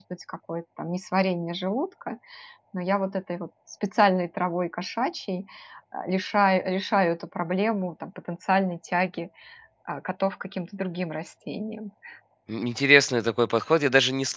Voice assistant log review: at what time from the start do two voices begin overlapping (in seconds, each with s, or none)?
none